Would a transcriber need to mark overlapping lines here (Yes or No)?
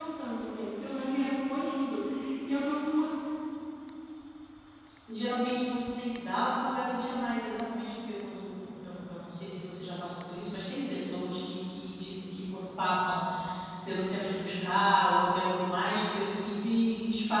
No